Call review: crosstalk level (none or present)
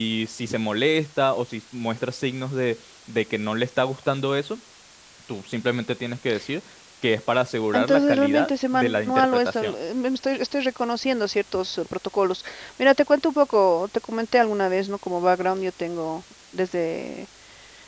present